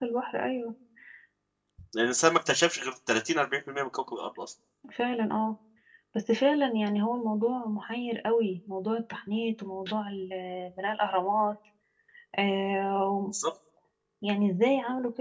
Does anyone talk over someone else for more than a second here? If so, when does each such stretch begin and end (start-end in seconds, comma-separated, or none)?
none